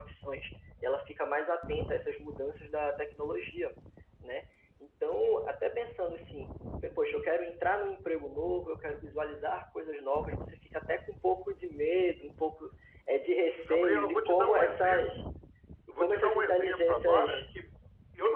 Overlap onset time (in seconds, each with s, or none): 13.7 s